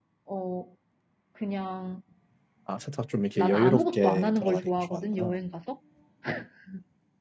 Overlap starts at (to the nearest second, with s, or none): 3 s